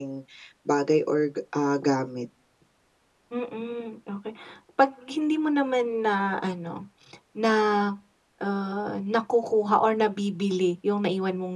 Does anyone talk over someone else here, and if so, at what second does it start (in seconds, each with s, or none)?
none